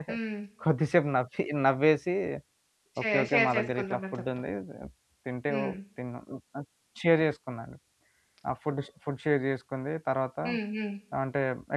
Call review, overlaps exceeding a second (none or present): present